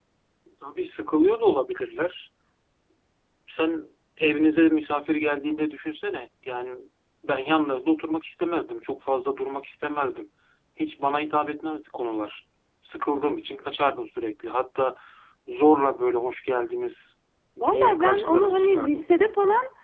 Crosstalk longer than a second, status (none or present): present